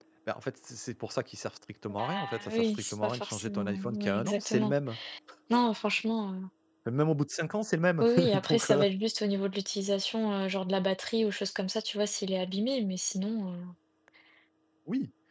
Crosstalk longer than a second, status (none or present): present